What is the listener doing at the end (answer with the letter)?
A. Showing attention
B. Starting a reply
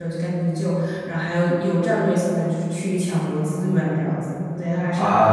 B